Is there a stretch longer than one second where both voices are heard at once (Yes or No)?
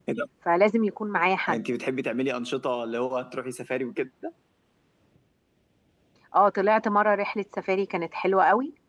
No